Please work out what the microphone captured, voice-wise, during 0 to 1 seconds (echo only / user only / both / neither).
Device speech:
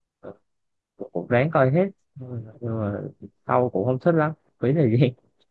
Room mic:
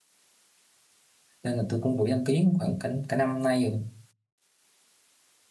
neither